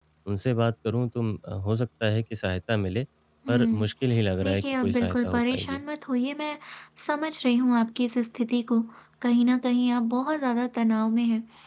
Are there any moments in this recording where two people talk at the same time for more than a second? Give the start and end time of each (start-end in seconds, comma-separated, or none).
4.4-5.8